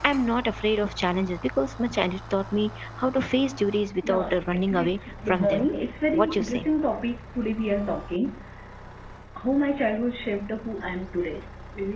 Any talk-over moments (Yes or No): Yes